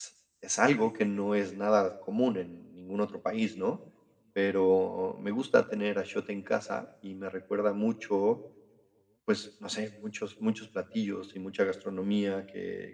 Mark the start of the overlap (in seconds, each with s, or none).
none